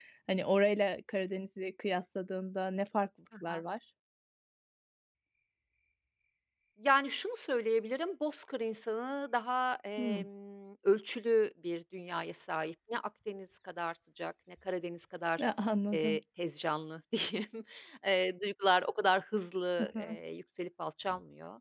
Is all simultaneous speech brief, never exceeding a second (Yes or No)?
Yes